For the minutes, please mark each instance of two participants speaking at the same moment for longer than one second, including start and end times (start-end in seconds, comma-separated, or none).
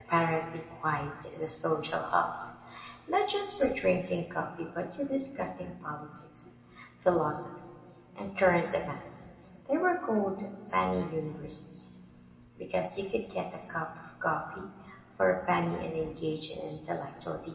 none